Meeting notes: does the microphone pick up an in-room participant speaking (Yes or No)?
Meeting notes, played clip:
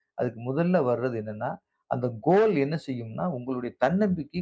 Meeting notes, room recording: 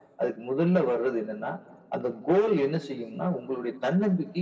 No